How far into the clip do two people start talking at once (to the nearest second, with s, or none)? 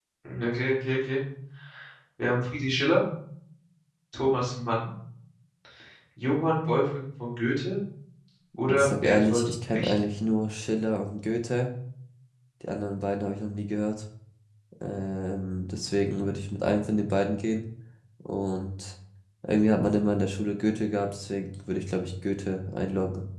9 s